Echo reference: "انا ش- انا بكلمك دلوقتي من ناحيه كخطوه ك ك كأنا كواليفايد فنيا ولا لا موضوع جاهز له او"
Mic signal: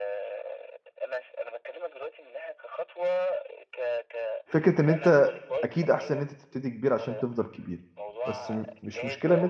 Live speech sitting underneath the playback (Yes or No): No